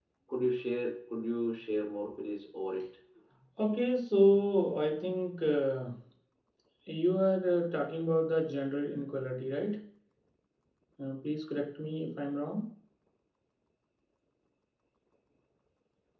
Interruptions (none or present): none